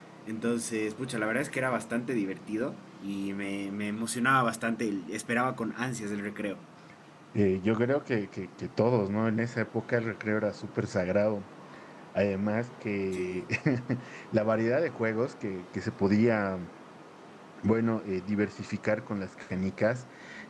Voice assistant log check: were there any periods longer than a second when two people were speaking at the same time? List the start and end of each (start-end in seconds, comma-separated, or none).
none